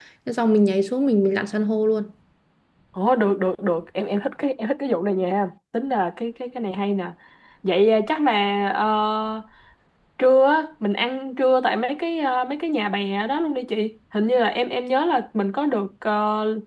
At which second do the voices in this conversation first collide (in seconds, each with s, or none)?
none